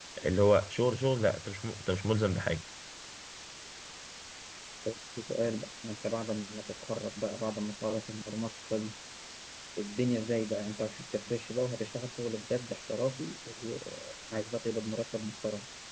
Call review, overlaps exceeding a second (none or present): none